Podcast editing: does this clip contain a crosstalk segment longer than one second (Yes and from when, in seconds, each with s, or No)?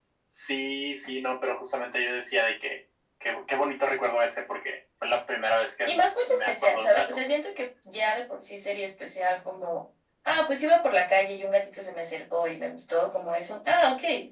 Yes, from 5.9 s